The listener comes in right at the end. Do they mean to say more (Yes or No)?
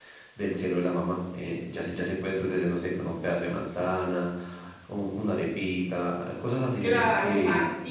Yes